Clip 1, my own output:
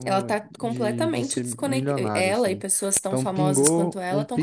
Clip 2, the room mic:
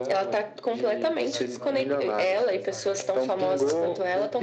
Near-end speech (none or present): present